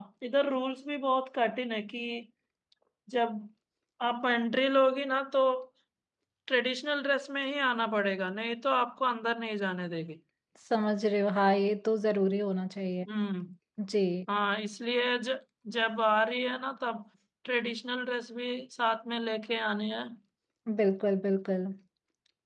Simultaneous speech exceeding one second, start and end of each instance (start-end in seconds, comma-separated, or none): none